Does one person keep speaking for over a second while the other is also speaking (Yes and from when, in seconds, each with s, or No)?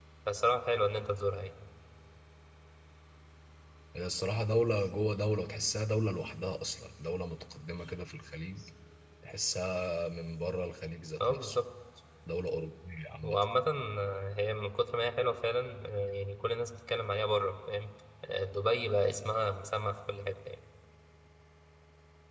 No